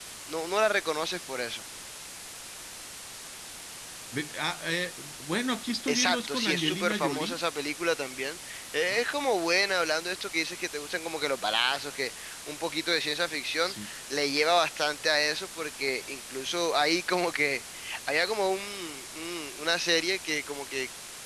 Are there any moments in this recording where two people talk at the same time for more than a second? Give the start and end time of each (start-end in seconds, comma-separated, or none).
5.9-7.4